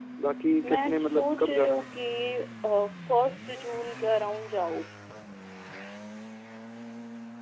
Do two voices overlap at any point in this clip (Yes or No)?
Yes